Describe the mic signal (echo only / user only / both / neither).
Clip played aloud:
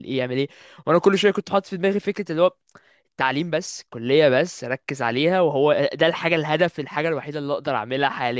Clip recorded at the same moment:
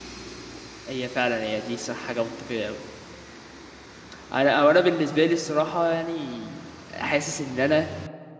user only